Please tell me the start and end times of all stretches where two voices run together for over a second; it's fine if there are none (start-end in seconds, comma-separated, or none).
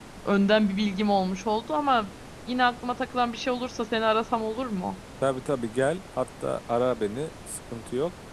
none